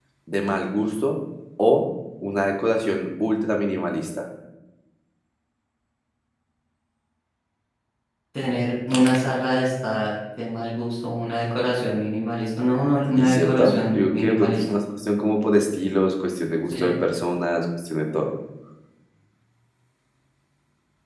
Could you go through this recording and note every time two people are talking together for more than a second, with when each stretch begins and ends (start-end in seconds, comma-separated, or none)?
13.2-14.6